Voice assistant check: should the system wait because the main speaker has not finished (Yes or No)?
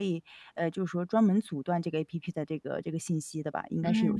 No